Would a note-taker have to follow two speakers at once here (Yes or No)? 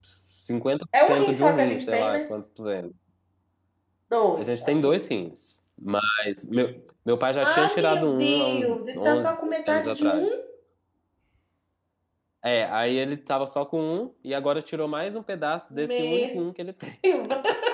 Yes